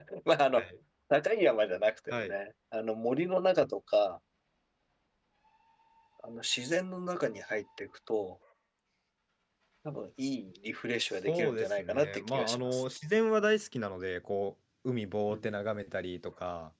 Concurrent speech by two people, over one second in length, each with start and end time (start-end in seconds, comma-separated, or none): 11.3-12.8